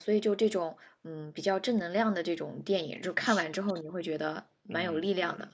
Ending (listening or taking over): taking over